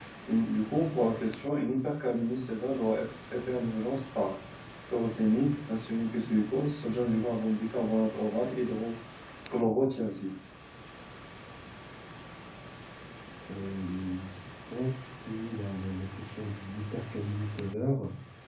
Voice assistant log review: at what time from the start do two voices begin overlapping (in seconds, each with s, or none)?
none